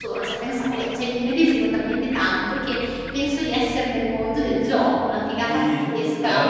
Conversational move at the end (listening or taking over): taking over